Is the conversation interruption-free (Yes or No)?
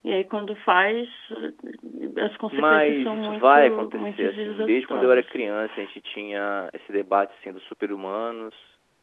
No